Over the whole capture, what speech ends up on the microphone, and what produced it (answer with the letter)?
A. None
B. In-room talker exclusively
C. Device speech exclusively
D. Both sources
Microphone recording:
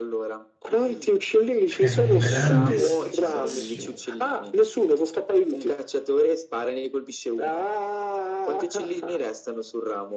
D